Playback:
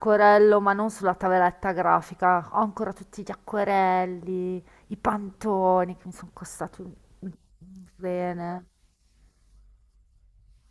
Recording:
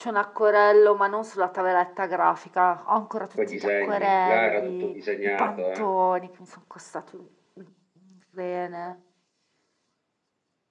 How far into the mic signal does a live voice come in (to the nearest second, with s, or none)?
3 s